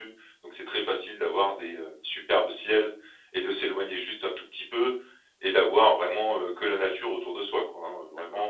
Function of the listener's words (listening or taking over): taking over